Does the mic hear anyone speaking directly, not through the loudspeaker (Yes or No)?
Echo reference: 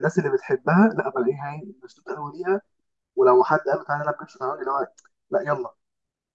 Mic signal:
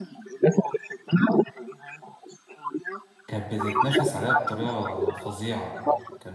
Yes